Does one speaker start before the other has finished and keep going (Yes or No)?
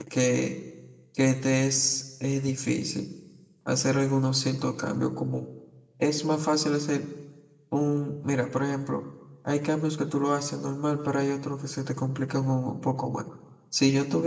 No